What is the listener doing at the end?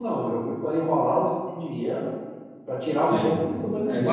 taking over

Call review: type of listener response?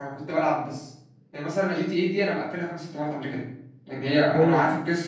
listening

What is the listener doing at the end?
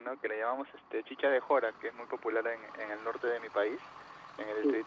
listening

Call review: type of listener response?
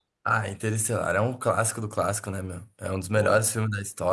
listening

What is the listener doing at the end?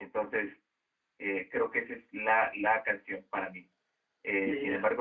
listening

